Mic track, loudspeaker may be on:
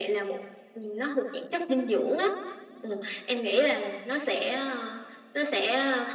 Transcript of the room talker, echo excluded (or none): none